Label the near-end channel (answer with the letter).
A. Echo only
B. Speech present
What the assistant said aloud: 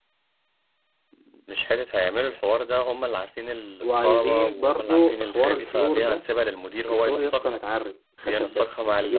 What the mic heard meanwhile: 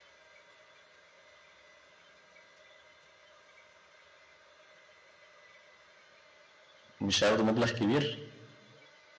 B